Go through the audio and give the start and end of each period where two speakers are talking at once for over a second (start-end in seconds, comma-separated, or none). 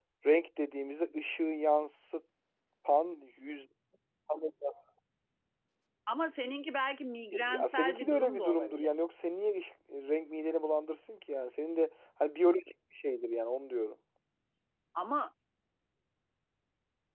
7.3-9.0